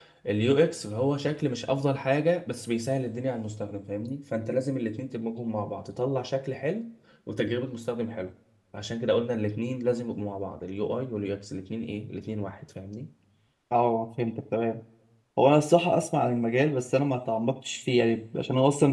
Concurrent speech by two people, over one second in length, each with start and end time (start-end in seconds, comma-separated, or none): none